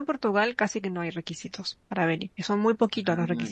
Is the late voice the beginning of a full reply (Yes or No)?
No